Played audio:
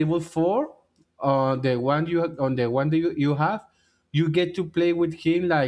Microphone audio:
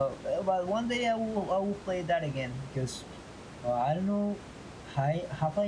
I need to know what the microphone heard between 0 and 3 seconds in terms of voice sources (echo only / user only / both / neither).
user only